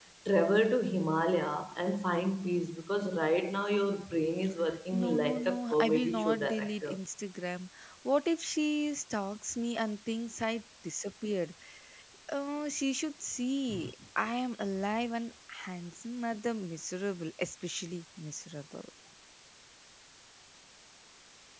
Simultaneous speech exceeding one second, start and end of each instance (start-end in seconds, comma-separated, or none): 4.9-7.0